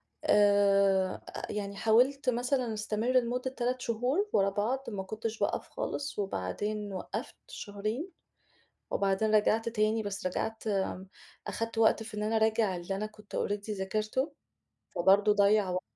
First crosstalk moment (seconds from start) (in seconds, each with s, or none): none